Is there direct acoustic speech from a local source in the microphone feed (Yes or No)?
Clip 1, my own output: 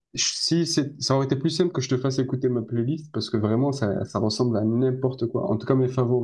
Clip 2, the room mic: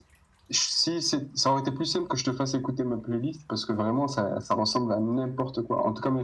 No